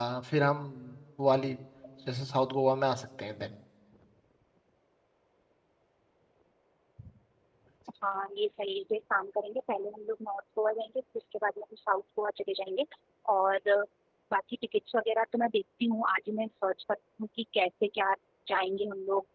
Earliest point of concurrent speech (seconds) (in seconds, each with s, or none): none